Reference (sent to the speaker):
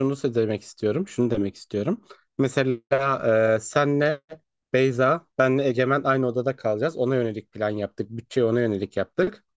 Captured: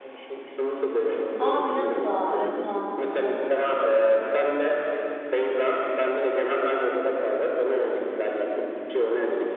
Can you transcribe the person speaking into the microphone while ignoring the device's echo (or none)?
Aa Milano'da. Evet tamam tamam hatırladım.